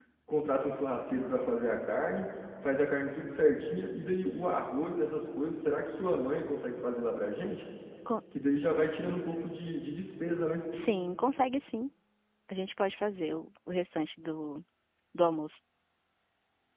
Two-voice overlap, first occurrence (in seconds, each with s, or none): none